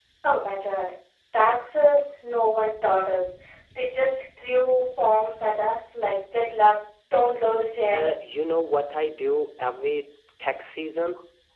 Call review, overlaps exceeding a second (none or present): none